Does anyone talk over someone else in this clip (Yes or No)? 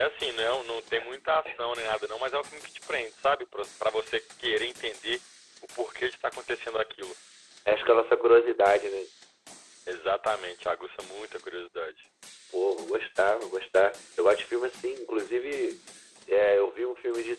No